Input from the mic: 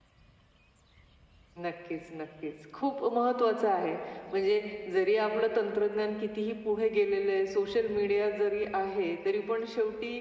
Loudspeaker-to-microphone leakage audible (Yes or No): No